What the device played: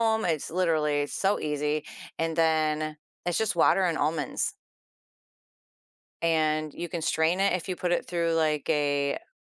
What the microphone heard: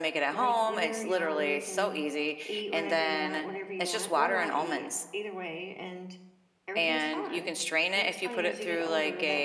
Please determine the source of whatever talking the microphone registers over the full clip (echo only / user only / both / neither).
both